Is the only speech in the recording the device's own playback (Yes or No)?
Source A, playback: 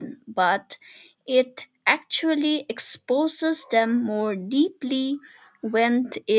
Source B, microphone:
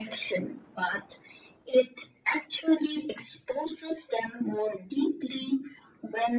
Yes